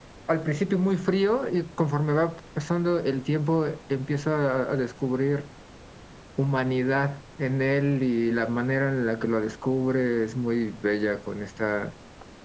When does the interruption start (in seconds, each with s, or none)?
none